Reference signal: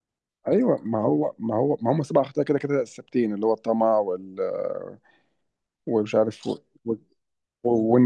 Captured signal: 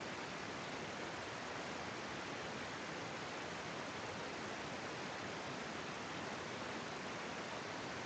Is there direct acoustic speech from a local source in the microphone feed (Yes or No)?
No